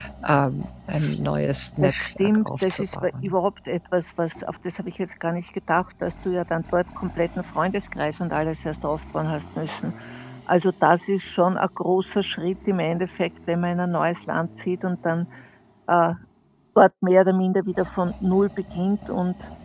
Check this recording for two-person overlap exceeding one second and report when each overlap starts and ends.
1.8-3.3

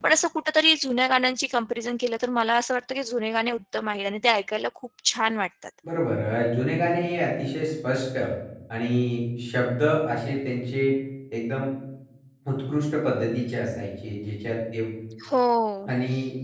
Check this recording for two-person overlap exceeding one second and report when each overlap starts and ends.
none

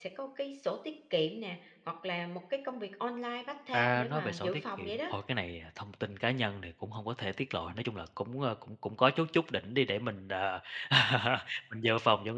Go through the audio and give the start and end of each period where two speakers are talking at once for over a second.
3.7-5.1

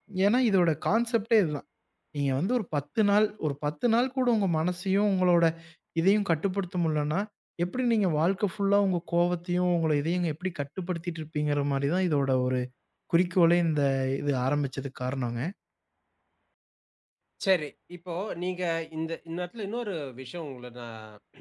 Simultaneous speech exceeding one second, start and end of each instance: none

